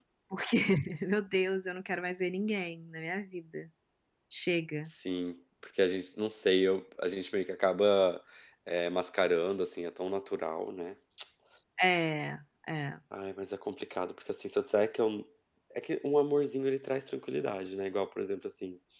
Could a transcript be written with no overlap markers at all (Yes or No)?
Yes